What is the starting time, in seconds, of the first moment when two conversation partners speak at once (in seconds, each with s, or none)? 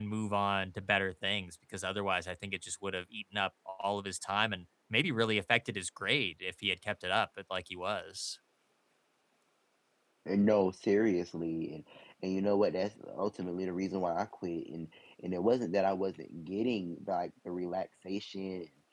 none